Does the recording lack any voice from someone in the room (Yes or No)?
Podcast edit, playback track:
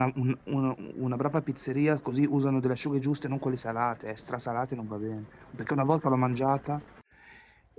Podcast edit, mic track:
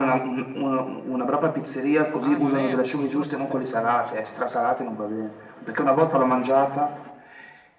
No